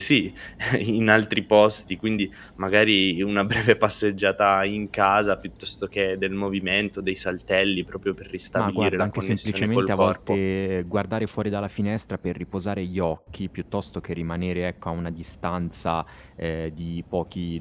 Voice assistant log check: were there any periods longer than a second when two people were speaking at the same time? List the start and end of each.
8.6-10.4

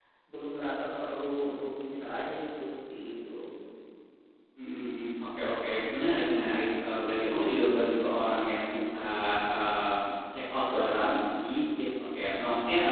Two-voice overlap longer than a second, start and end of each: none

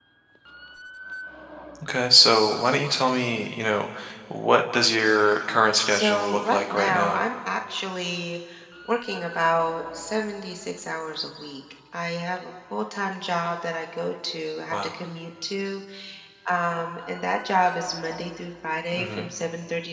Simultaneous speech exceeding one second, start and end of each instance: 5.8-7.2

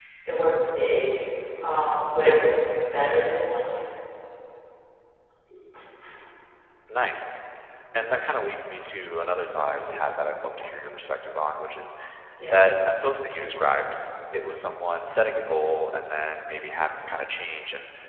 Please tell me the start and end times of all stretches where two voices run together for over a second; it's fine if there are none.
none

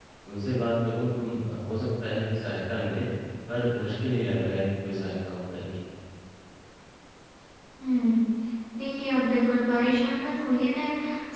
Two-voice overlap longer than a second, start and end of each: none

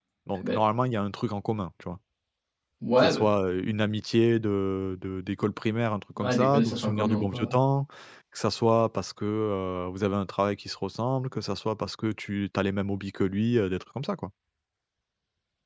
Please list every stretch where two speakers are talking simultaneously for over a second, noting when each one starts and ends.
6.2-7.5

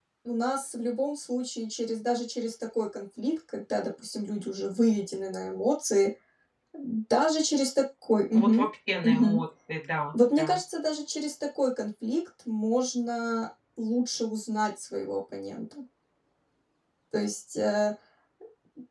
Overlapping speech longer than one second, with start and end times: none

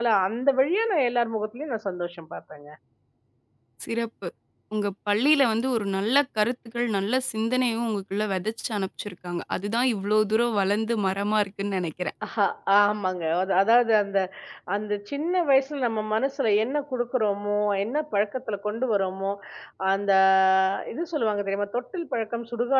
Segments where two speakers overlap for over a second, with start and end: none

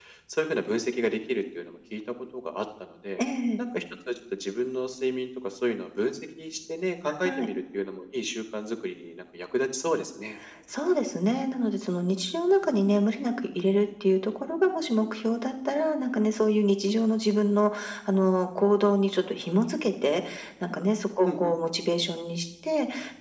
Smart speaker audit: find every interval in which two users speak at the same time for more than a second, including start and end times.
none

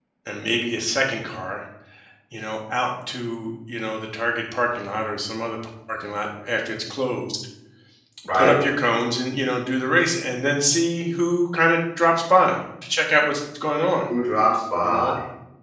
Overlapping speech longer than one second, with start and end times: none

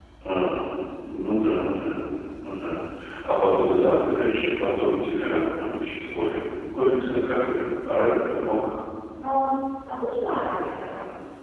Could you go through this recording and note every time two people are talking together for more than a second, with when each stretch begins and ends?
none

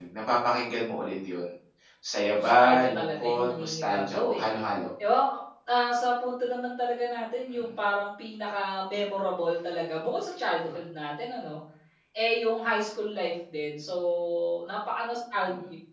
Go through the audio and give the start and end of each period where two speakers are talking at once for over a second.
2.4-4.5

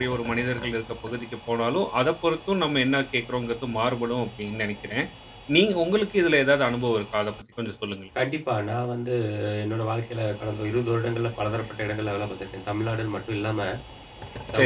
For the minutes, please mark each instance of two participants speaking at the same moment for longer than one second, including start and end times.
none

